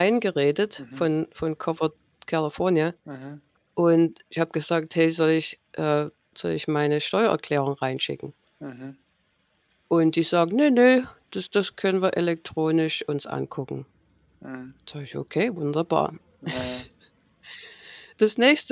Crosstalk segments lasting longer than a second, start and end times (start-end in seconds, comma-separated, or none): none